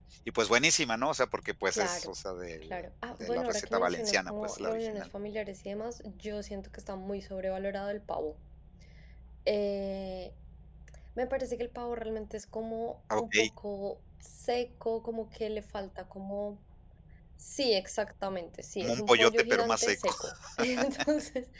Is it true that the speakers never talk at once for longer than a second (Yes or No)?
No